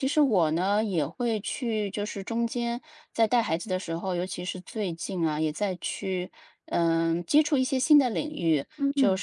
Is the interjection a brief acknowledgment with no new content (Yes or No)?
Yes